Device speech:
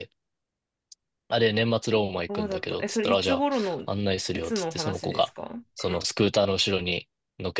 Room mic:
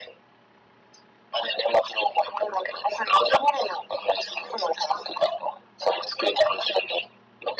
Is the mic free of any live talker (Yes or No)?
Yes